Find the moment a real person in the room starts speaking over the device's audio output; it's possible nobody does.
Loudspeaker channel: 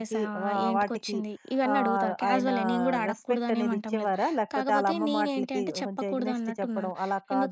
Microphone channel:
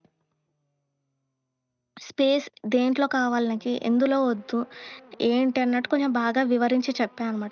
2.0 s

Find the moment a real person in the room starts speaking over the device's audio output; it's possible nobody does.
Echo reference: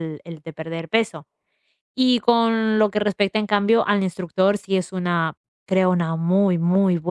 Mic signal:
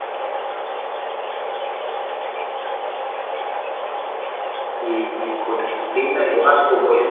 4.8 s

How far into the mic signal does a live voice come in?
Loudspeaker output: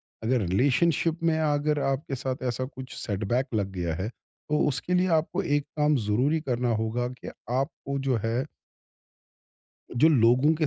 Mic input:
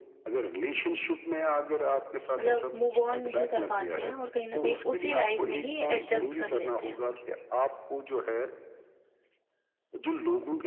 2.4 s

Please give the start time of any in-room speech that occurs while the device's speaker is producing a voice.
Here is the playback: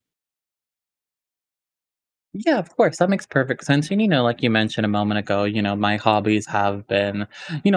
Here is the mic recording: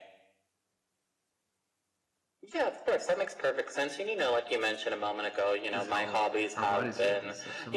5.7 s

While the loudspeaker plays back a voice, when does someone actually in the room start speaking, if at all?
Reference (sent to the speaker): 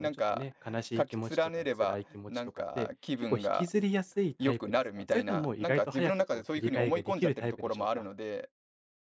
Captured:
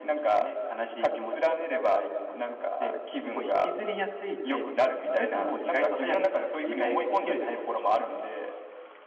none

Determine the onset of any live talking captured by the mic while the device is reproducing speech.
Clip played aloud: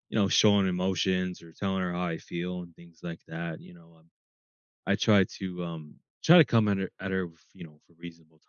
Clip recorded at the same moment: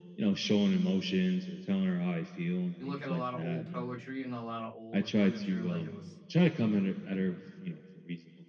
2.8 s

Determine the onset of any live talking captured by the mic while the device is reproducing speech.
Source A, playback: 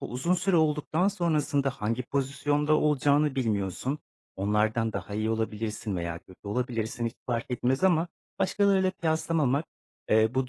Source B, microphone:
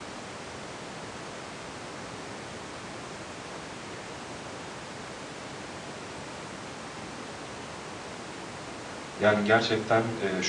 9.2 s

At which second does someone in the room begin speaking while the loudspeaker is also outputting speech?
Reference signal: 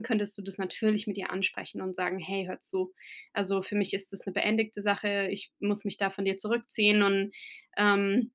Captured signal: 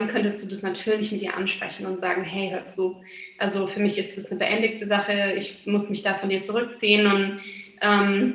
none

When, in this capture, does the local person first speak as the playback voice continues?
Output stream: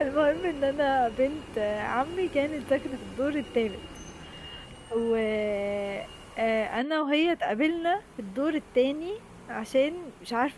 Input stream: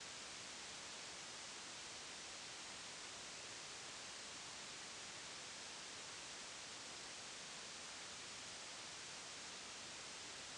none

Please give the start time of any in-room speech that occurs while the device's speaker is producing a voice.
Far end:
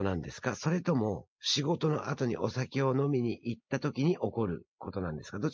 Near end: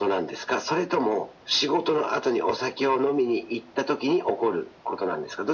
none

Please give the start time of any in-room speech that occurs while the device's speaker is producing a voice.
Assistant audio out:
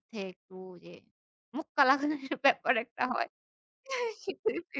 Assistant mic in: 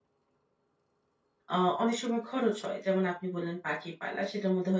1.5 s

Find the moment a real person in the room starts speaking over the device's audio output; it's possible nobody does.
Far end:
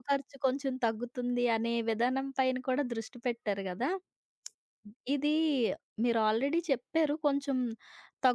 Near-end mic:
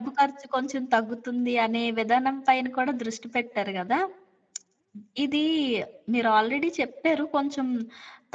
none

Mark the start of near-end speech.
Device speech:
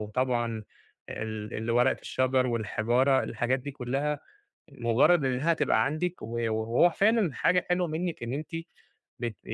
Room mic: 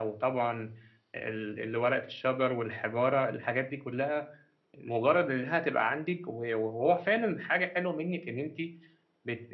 none

